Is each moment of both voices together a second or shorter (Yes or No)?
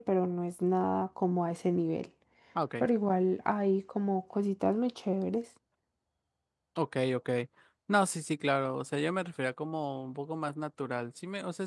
Yes